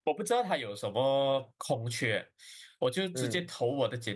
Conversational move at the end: listening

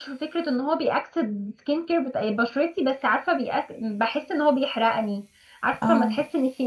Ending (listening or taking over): listening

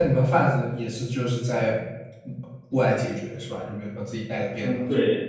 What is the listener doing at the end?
taking over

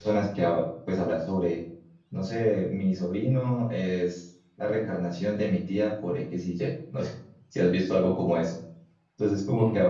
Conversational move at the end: listening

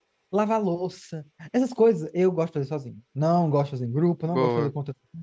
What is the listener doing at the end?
listening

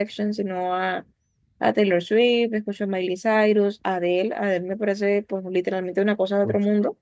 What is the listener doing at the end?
taking over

